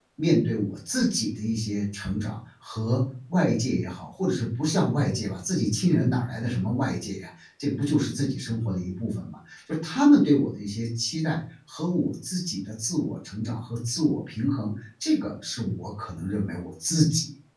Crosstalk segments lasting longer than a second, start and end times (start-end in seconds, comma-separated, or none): none